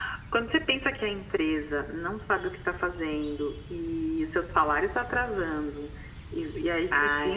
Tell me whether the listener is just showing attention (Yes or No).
Yes